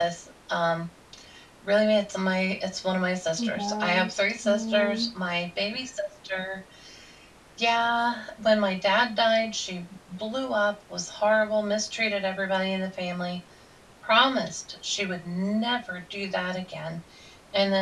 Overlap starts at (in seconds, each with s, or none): 3.4 s